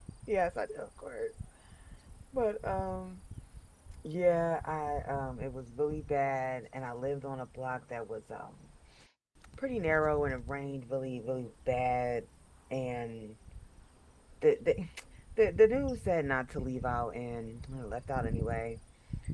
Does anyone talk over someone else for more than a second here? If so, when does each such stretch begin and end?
none

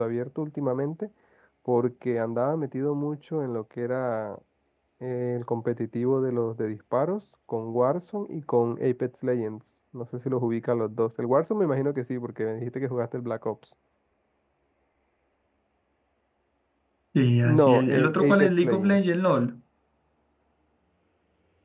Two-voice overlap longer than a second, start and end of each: 17.4-19.0

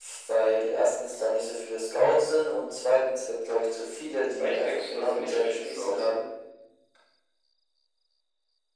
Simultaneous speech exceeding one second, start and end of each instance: 4.4-6.0

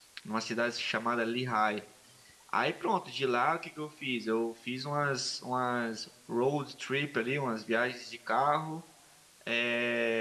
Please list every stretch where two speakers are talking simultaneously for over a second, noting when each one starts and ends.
none

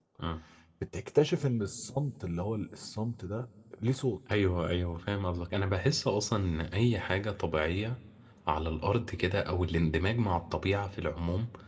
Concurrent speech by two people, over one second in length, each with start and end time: none

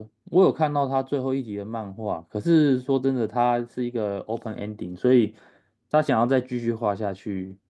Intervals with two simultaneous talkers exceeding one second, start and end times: none

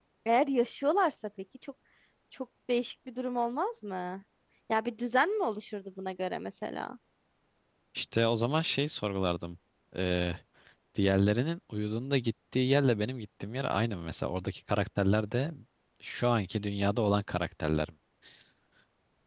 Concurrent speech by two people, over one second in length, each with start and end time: none

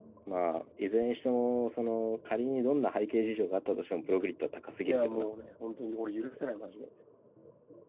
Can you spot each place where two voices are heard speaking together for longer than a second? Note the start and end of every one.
none

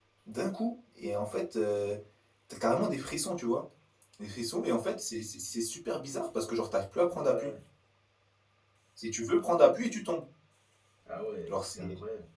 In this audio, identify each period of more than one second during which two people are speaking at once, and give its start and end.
none

